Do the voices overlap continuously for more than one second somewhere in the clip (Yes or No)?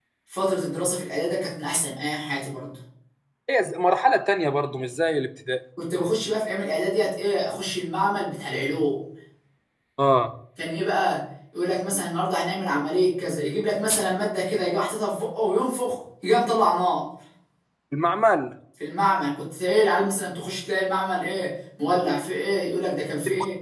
No